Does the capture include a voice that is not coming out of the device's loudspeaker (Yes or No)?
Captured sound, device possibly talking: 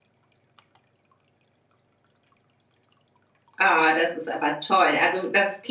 Yes